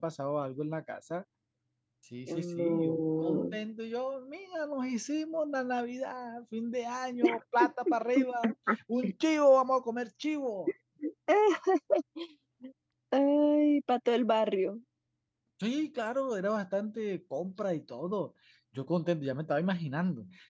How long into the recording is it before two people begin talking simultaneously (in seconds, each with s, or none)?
2.3 s